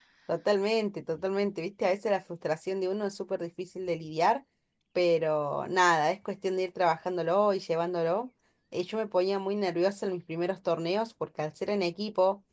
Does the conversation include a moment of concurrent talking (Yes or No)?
No